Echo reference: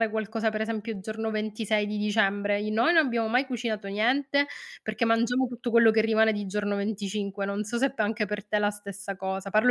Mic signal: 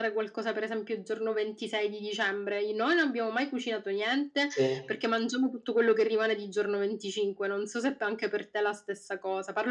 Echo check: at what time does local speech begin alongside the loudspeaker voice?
4 s

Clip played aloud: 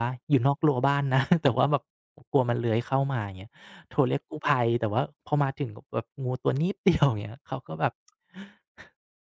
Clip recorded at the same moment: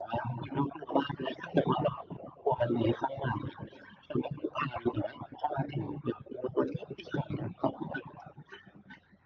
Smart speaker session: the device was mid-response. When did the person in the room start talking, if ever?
none

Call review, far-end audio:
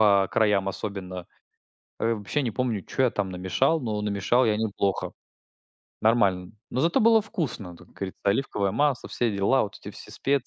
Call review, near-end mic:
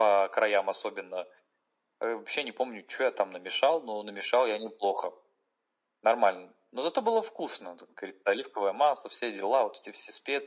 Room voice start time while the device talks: none

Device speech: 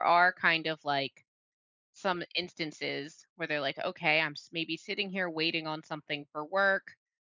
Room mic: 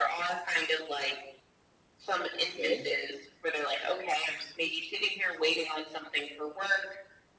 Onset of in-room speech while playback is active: 2 s

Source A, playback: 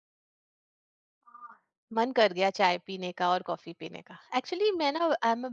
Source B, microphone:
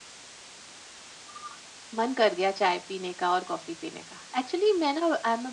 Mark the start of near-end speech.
none

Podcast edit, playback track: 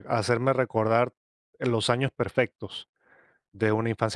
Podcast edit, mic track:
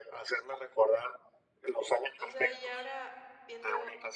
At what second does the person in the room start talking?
2 s

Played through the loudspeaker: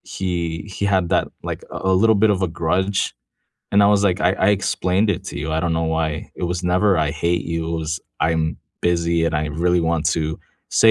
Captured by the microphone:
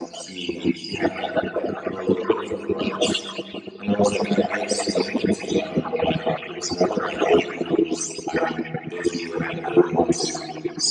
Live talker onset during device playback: none

